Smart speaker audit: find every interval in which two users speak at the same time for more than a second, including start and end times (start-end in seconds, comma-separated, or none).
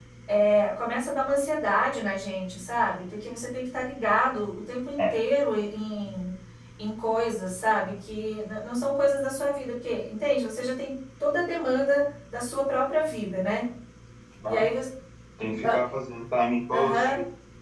none